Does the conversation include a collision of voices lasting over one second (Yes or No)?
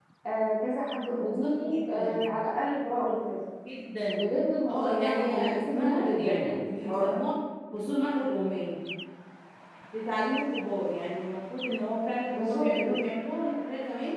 Yes